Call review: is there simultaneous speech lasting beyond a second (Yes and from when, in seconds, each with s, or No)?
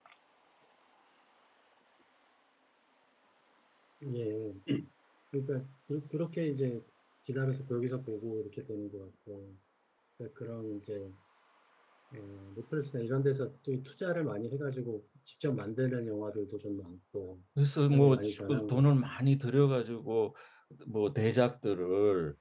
Yes, from 17.9 s